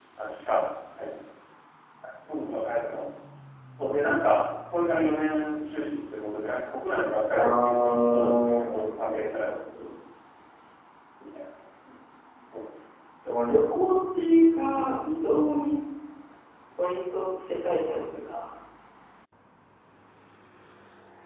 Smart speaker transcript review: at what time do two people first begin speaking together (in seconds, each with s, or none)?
7.3 s